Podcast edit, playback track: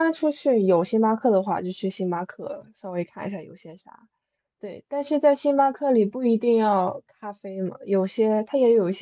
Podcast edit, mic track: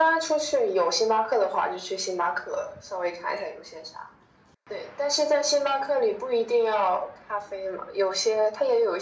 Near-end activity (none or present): none